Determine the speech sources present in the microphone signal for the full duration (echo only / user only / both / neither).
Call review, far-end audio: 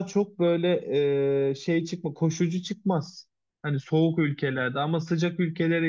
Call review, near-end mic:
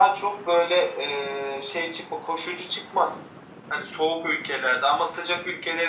echo only